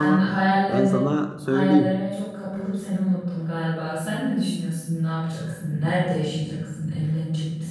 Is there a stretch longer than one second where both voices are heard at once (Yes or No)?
No